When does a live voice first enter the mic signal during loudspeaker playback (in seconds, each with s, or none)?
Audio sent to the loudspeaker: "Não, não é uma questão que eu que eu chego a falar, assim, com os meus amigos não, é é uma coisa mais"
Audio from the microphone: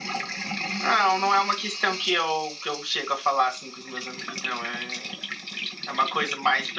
none